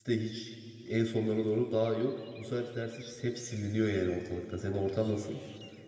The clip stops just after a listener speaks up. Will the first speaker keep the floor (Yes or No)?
No